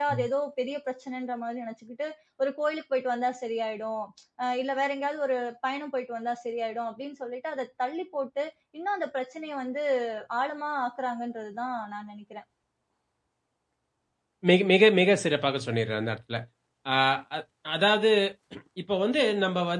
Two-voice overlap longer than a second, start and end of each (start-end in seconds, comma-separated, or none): none